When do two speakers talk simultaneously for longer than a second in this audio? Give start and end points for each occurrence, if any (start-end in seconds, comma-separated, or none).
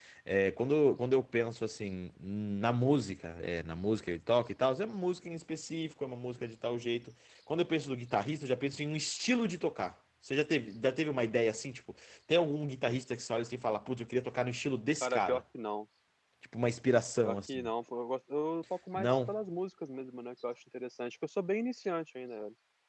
none